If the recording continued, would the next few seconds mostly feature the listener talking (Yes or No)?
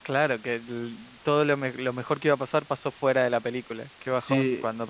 Yes